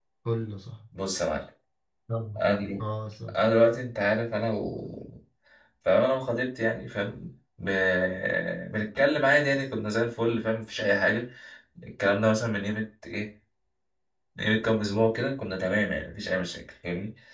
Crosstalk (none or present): none